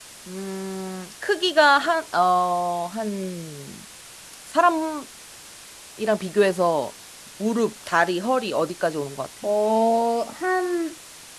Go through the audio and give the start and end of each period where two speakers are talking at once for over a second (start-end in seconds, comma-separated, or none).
none